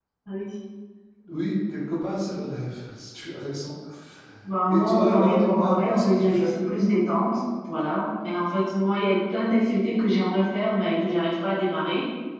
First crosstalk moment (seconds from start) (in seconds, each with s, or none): 4.7 s